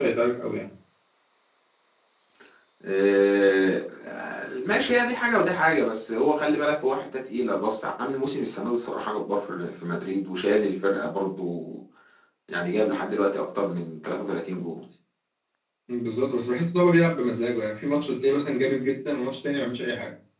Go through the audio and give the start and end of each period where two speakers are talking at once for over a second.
none

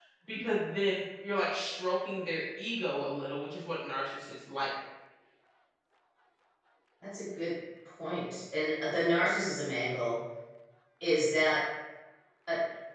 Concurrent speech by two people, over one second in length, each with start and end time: none

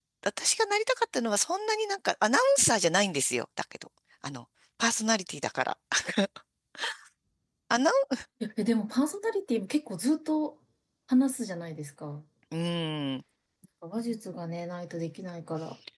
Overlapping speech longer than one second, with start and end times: none

